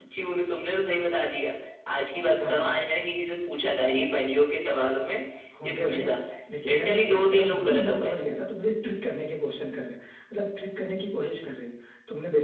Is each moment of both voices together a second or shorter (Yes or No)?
No